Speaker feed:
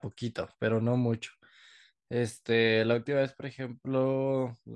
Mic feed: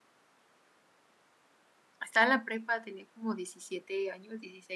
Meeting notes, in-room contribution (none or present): present